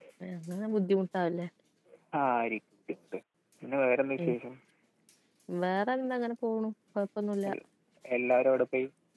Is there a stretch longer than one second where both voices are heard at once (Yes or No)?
No